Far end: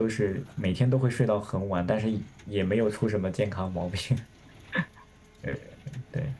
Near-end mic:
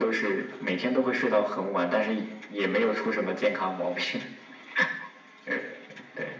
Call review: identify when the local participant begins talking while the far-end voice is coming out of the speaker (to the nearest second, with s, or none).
none